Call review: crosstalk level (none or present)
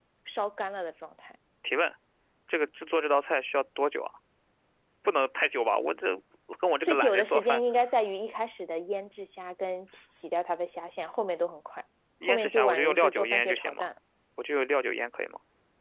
present